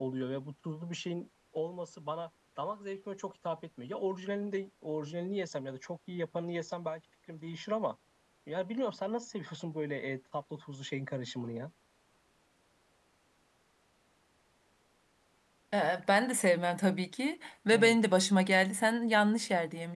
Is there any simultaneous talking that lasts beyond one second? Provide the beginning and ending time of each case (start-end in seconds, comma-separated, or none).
none